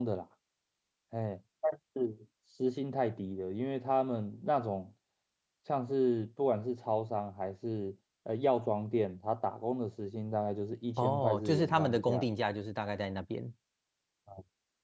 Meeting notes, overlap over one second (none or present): present